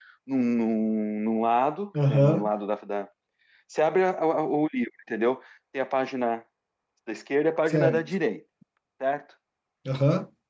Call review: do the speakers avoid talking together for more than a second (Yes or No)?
Yes